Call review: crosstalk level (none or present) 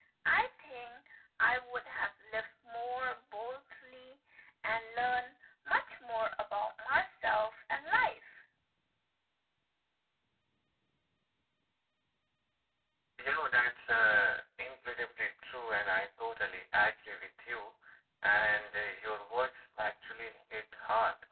none